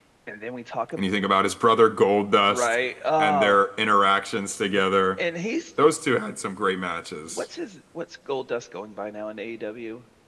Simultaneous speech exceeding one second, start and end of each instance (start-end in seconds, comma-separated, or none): none